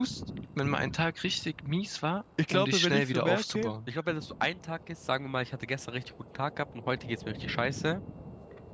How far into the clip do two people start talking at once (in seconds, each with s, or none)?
2.4 s